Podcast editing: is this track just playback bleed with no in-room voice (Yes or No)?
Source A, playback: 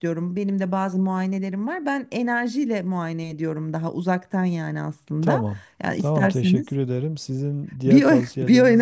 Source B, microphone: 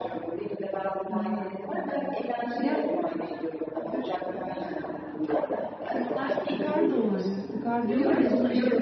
No